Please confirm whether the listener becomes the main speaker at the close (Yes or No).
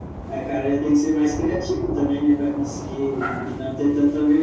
No